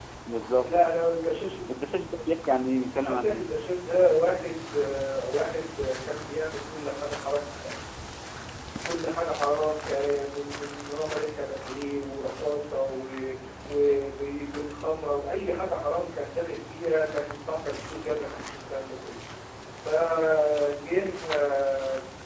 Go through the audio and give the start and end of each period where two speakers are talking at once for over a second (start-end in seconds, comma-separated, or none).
none